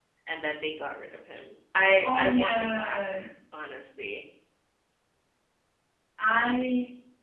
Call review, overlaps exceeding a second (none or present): present